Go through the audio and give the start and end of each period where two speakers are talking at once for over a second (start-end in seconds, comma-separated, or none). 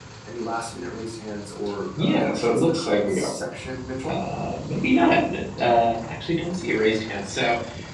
2.0-3.3